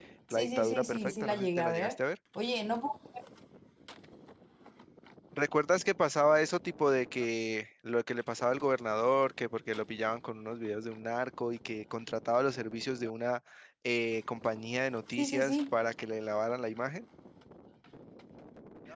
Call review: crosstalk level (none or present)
present